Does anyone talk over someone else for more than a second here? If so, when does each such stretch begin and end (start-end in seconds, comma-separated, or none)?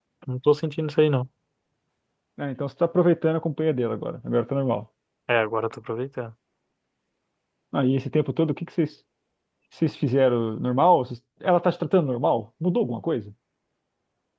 none